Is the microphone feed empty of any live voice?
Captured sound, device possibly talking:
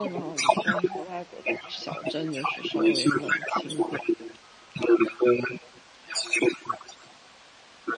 No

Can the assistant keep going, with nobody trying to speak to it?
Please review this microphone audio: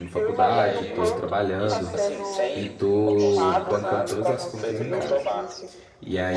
No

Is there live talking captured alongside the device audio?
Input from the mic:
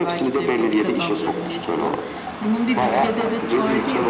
No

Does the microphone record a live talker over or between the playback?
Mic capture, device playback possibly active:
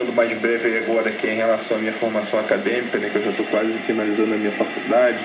No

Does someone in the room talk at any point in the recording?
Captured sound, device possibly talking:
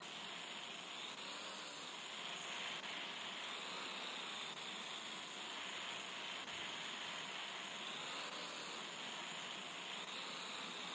No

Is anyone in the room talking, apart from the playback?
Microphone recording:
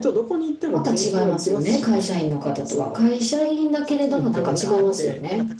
Yes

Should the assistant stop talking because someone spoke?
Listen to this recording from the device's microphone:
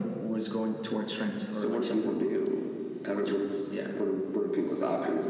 No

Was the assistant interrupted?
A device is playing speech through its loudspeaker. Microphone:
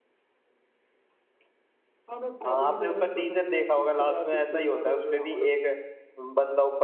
Yes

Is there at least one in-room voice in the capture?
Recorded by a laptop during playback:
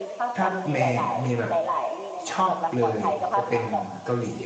Yes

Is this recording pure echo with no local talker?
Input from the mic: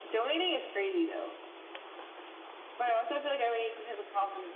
Yes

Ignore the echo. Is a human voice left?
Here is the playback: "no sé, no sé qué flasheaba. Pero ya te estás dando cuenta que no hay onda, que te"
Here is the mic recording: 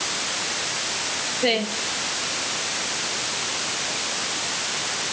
Yes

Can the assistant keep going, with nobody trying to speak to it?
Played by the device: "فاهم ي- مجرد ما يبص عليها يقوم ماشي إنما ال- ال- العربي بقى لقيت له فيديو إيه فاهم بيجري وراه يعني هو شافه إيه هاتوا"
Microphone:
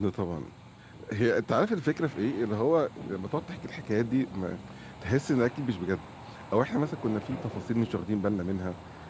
No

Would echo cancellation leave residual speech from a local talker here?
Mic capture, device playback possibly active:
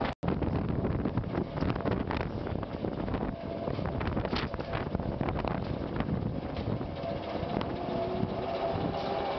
No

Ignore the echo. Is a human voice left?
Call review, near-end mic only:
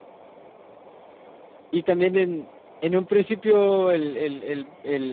Yes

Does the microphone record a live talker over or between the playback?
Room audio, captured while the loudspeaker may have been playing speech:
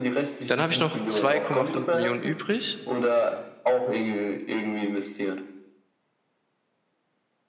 Yes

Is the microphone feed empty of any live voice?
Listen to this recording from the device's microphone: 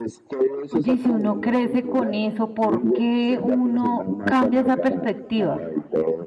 No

